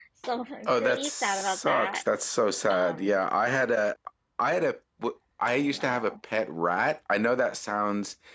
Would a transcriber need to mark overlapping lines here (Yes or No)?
Yes